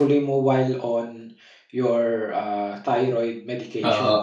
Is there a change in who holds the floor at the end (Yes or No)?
Yes